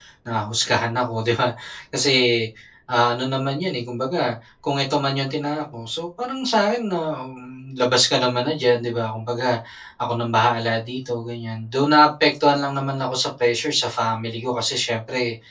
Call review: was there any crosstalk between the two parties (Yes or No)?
No